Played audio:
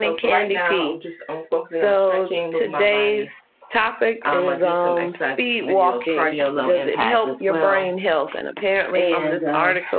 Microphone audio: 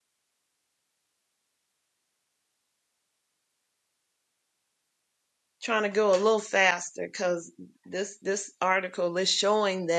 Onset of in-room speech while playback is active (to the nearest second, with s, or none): 6 s